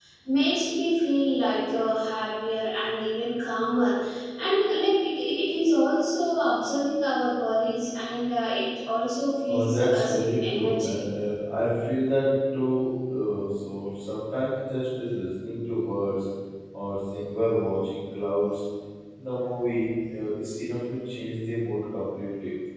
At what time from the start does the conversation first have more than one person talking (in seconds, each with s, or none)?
9.5 s